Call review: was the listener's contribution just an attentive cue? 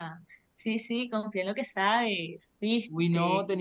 No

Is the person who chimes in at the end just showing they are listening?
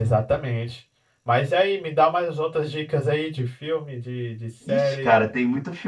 No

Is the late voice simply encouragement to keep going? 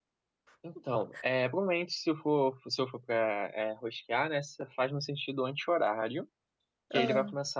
Yes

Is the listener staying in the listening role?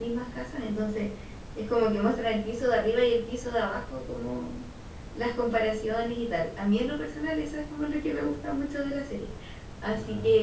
Yes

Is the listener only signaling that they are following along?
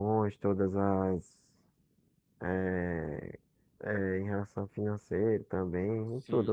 No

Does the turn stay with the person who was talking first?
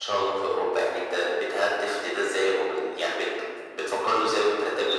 No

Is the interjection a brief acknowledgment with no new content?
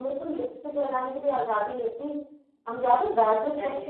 Yes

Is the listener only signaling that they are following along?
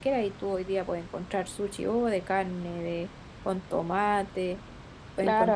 No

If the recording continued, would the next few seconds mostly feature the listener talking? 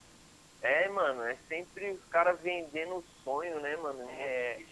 No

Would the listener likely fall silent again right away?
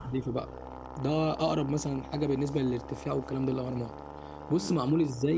Yes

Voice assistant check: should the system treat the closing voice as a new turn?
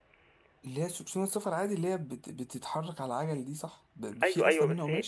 Yes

